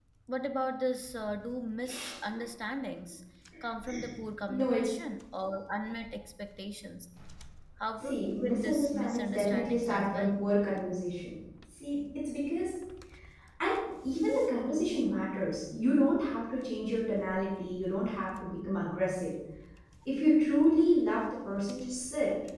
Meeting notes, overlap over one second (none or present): present